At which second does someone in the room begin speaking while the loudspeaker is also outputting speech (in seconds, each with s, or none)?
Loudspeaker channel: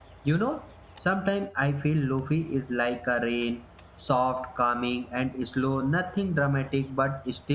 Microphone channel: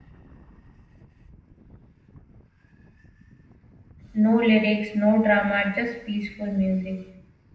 4.1 s